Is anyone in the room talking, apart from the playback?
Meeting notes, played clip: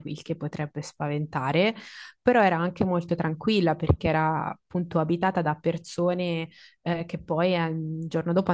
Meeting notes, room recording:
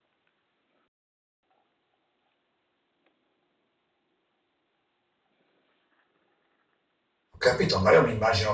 Yes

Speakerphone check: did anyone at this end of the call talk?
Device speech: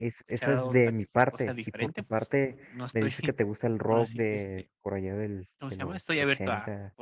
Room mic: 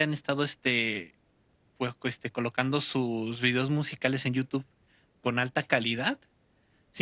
Yes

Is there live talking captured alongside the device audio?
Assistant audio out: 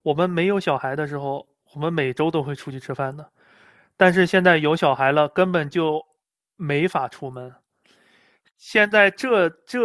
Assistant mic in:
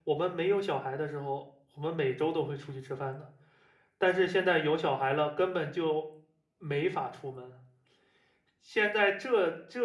No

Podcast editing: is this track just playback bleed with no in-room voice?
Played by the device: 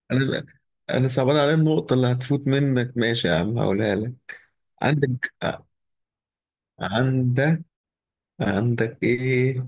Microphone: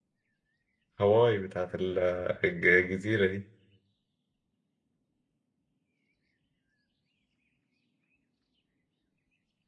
No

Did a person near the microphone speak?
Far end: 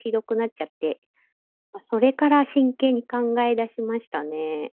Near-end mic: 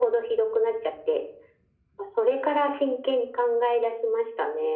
No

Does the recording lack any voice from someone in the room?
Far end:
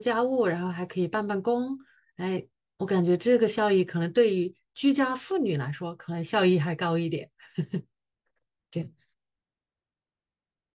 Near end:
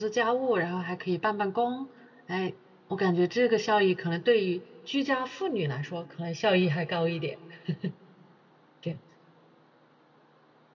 Yes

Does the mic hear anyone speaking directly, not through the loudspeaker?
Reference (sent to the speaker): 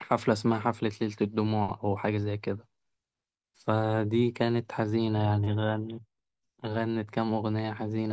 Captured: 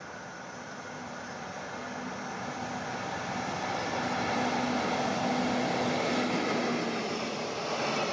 No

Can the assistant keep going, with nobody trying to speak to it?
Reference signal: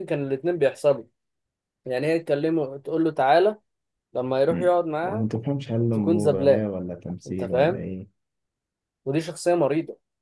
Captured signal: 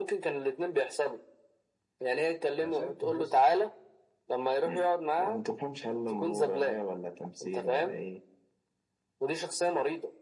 No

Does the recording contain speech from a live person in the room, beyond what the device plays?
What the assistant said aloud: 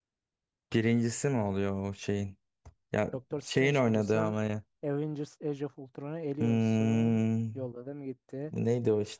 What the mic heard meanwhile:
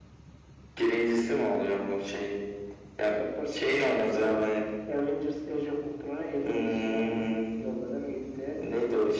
No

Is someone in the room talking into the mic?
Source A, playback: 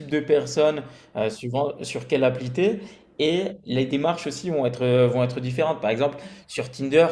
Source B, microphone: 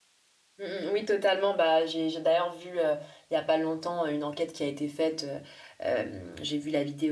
Yes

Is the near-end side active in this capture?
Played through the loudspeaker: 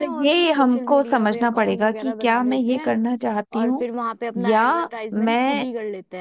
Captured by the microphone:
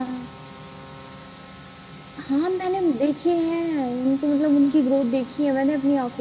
Yes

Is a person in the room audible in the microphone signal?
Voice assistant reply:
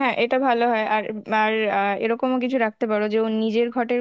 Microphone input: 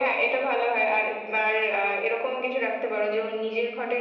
No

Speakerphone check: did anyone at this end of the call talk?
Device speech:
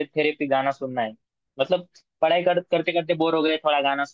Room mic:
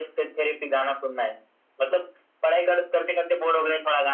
No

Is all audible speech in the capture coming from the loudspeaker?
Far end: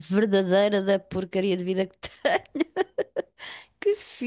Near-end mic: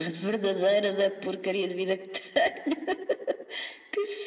Yes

